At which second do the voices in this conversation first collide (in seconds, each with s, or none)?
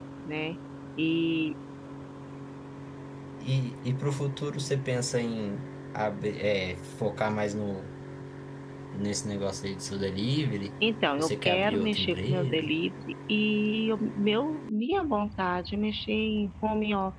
11.2 s